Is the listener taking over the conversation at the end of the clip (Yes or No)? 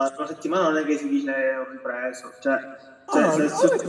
Yes